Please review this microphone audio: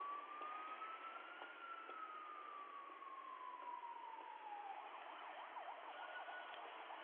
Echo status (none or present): none